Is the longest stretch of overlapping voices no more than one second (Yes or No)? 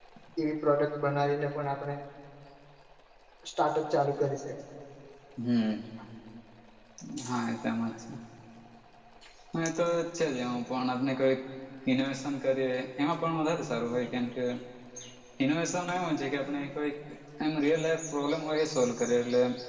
Yes